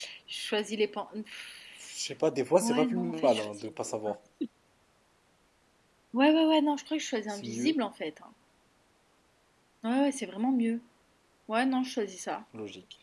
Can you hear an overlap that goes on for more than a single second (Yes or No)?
Yes